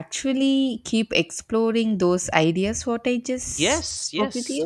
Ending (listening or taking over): taking over